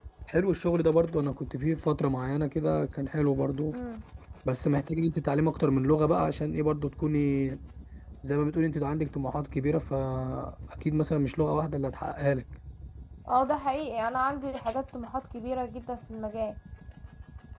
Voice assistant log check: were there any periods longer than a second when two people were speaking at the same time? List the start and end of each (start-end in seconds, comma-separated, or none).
none